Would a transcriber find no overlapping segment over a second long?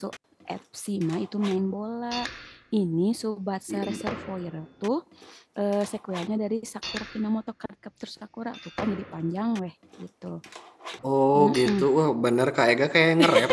Yes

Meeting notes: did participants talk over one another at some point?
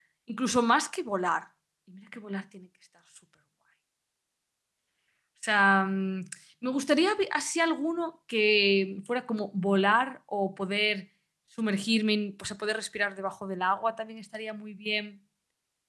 No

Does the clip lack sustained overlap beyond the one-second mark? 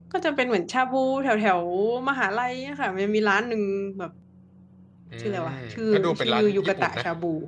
No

